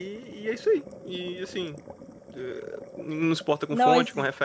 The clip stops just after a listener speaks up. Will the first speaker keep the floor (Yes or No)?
Yes